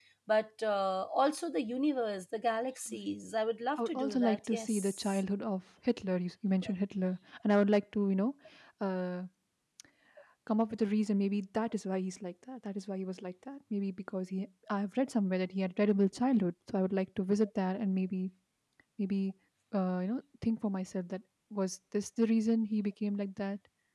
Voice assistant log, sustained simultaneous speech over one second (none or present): present